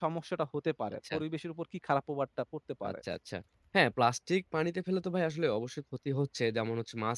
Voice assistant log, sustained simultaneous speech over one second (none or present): none